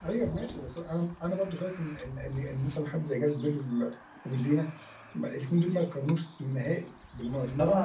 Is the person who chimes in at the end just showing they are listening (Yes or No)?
No